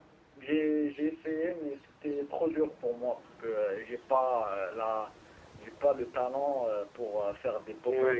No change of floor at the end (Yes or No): No